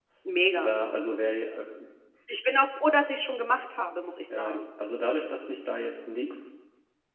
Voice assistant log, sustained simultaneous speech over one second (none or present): none